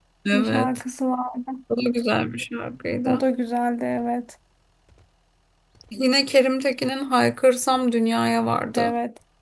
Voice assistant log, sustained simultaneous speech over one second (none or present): none